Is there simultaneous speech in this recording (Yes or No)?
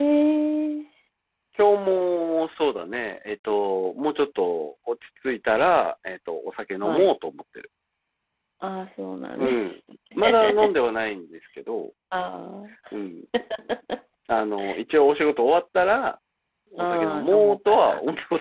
Yes